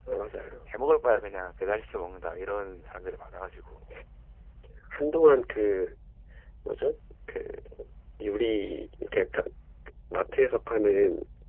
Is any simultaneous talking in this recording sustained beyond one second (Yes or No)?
No